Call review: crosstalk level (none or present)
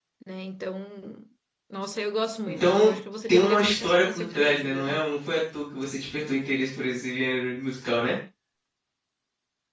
present